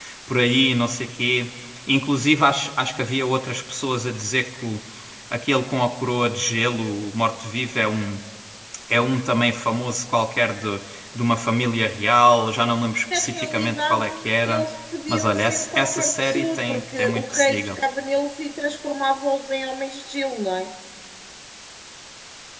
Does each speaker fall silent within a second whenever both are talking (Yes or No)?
No